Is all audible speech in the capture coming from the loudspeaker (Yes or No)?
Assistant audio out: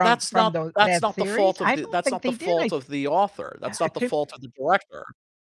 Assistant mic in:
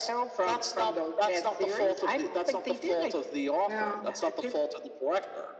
No